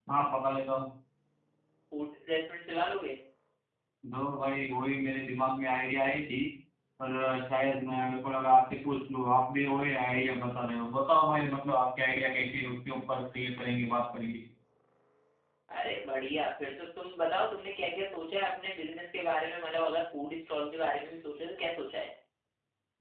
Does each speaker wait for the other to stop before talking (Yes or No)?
Yes